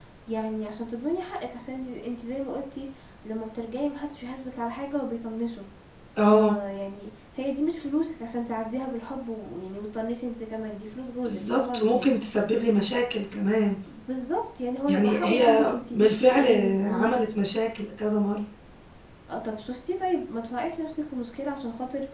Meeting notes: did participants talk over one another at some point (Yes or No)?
Yes